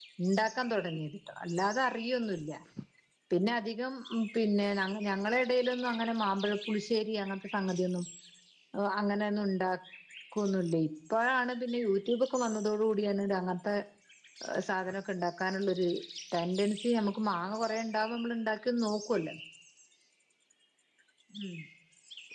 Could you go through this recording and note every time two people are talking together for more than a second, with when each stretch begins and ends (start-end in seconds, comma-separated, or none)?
none